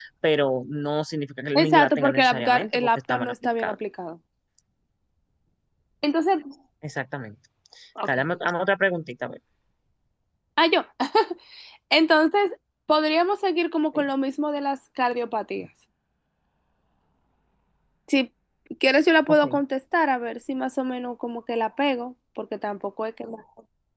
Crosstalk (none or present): present